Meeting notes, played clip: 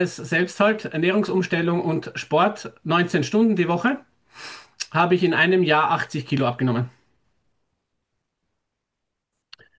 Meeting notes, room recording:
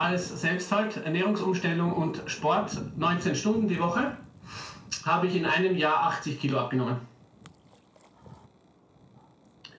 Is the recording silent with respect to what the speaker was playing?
No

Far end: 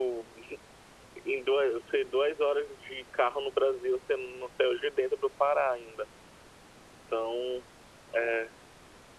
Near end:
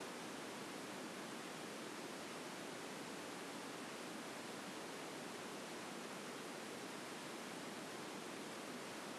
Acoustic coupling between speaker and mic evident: No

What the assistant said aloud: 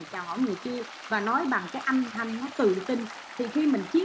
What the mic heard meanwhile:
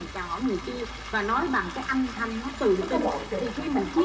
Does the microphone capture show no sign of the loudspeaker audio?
No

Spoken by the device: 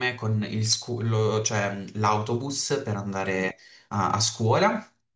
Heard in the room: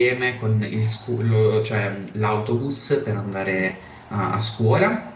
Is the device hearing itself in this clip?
Yes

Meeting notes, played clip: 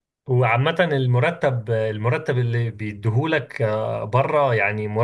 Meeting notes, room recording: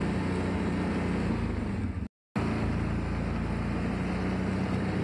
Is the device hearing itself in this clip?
No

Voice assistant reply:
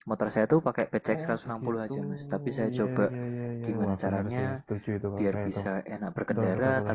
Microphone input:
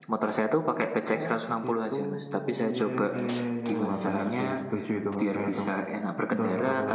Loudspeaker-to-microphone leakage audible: Yes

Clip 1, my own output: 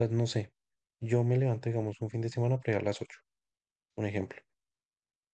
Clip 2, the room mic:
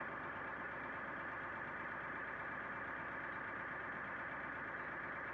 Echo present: No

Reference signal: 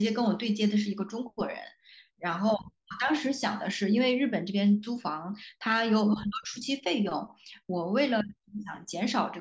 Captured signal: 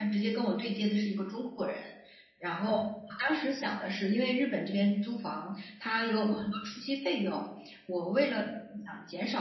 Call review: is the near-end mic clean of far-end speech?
No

